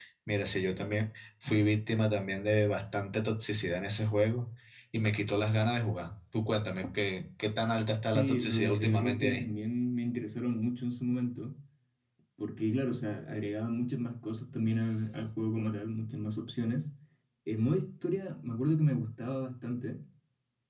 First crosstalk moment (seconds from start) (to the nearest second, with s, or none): 8 s